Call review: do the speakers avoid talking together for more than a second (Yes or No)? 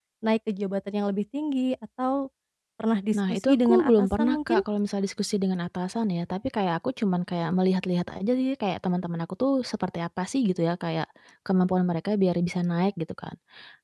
No